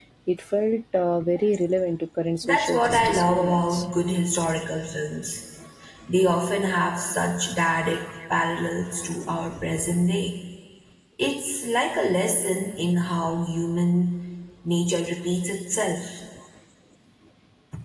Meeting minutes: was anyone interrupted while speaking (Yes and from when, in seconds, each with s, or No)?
Yes, from 2.4 s